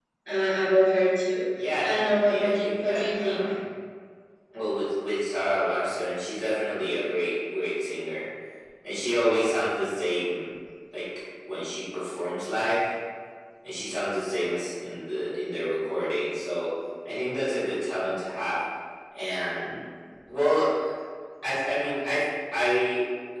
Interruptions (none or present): present